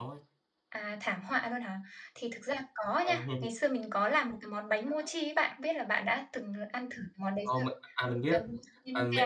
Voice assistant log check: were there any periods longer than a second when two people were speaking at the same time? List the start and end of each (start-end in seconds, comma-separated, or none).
none